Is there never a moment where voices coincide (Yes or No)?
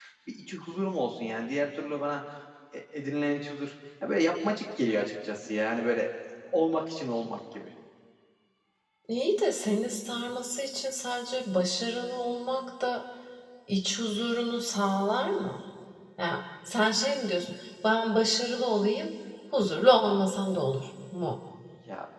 Yes